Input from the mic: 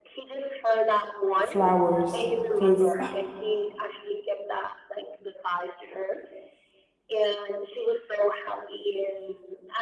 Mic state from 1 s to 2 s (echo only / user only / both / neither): both